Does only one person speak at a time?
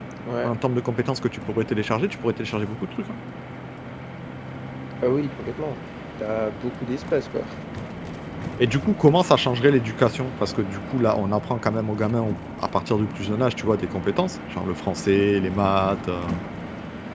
Yes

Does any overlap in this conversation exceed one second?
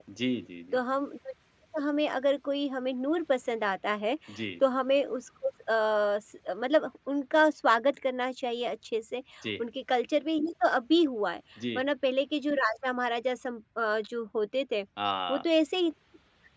No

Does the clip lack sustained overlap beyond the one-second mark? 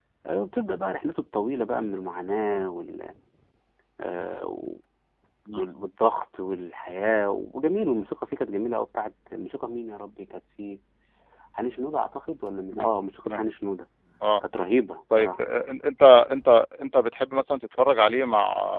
Yes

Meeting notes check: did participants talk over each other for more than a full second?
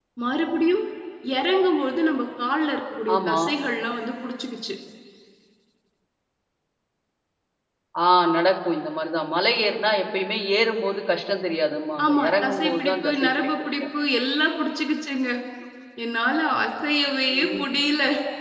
Yes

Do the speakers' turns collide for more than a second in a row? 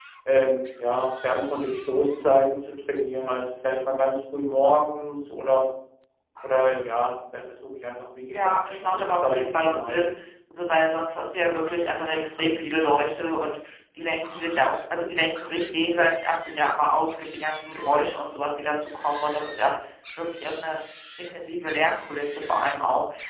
Yes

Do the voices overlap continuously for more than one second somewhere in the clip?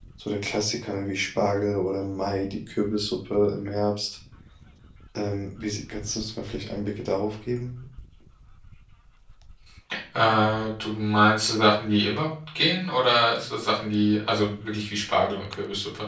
No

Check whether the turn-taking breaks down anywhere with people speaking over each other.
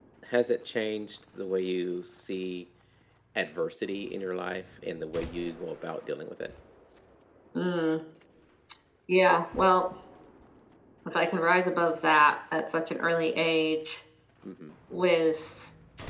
No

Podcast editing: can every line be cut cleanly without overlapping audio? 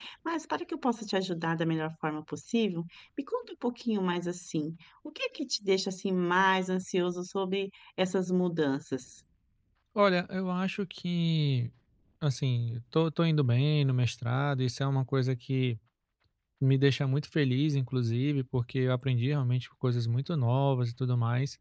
Yes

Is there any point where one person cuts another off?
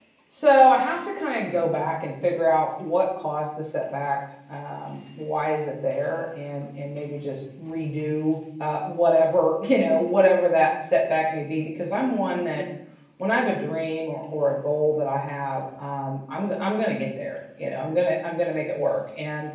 No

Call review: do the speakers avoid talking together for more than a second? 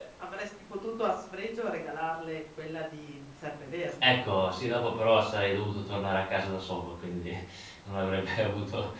Yes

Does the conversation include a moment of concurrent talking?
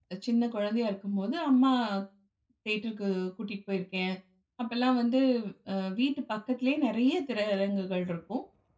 No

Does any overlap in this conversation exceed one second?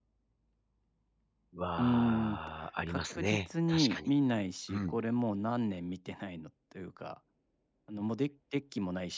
Yes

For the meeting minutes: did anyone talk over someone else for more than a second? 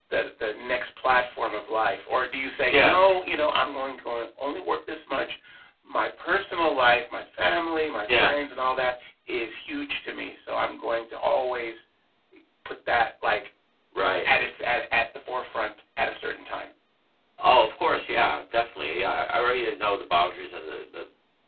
No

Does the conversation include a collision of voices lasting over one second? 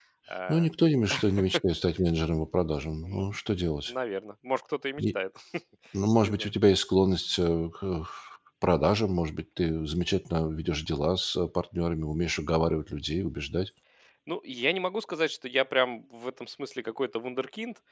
No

